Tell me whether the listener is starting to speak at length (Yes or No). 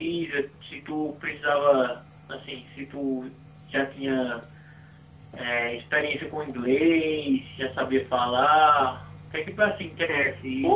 Yes